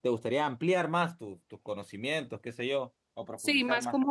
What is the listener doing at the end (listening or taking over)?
taking over